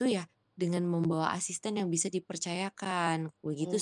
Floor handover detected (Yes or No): Yes